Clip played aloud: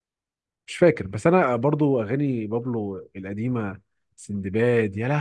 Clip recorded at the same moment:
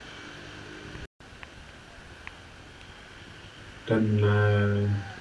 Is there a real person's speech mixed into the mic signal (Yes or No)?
Yes